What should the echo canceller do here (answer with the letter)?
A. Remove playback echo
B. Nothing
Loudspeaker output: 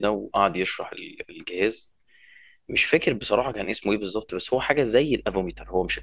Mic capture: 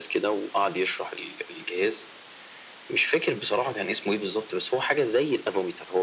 A